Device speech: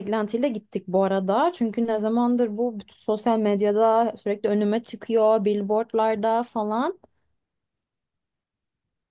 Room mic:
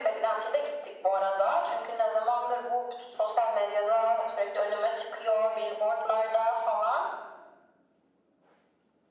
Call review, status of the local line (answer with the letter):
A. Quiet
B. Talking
A